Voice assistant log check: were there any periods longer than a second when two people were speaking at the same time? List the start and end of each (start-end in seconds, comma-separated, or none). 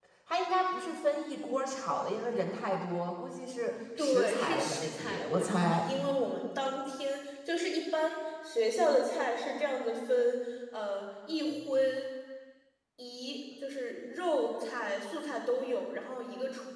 4.0-5.8